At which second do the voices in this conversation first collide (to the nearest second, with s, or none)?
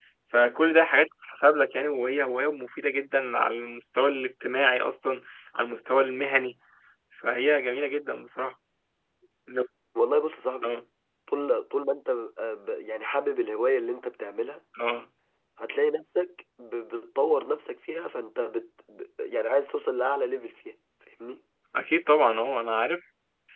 none